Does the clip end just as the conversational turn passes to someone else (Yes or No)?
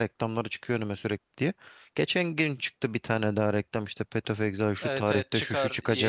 Yes